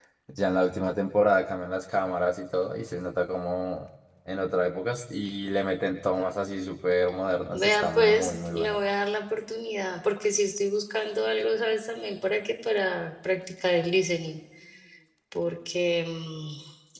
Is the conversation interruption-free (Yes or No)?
No